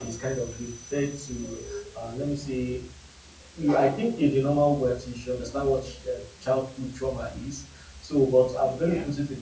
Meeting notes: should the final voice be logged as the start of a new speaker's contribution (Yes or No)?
No